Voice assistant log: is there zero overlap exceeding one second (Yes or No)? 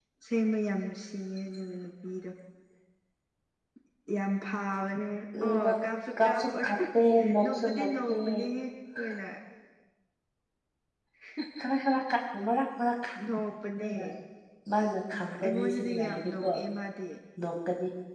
No